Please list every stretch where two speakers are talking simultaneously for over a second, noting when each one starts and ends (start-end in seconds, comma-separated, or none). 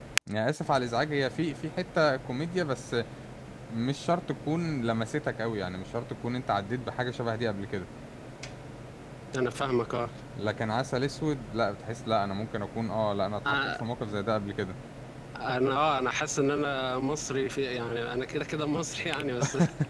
none